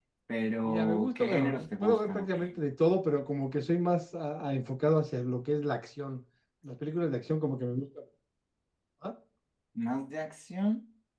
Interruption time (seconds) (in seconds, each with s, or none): 0.6 s